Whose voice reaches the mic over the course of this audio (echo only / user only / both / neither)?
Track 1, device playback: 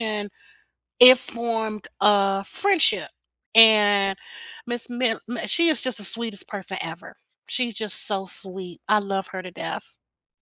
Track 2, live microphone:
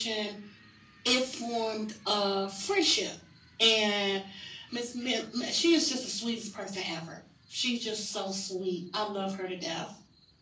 echo only